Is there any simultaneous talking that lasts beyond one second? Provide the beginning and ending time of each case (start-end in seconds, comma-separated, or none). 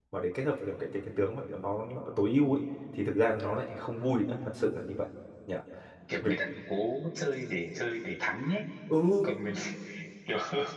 none